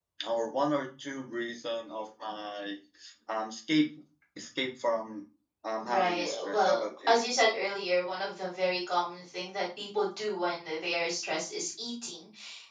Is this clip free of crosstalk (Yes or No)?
No